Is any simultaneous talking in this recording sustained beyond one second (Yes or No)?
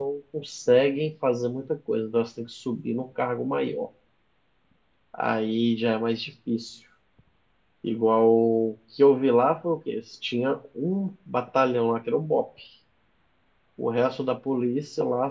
No